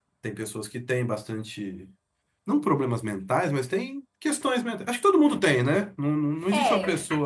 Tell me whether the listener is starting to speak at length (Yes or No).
Yes